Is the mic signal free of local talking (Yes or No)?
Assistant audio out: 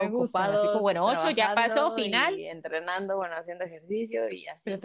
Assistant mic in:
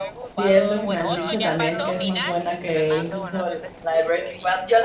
No